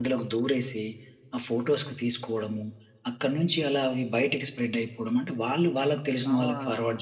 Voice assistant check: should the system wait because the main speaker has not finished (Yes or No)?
Yes